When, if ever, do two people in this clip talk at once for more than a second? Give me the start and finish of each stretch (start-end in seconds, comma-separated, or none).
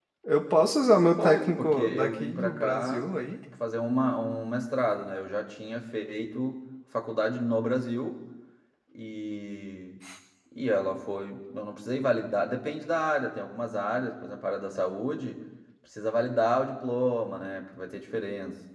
1.2-3.1